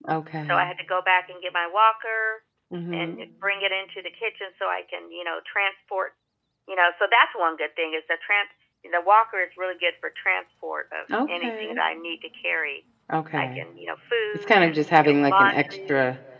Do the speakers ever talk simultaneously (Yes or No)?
Yes